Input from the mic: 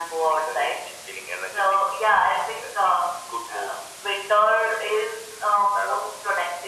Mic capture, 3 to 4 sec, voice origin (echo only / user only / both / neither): echo only